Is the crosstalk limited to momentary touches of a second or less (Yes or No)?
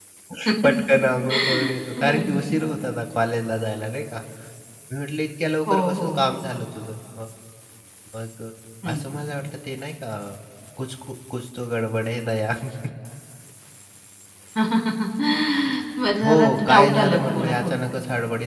No